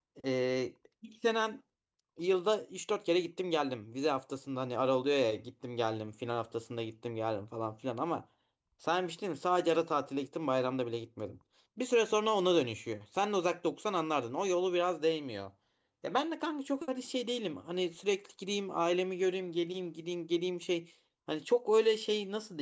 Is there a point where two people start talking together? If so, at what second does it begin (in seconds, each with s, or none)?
none